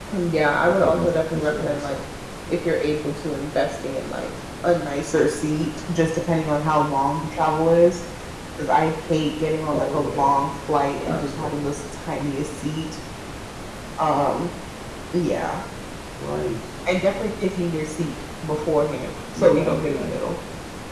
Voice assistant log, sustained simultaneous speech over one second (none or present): present